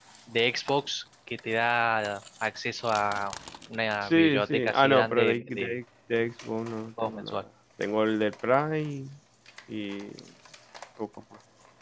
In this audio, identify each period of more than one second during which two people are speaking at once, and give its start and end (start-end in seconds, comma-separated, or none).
4.0-5.8